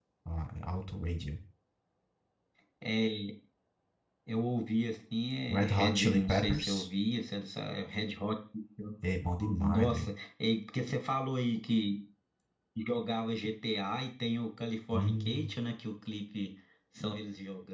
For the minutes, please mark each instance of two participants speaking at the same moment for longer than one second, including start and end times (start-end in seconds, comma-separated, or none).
5.5-6.9